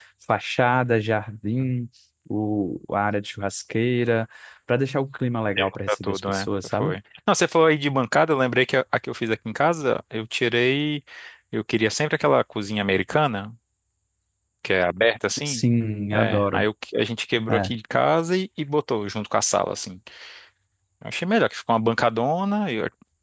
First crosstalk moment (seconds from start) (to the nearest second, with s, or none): 6 s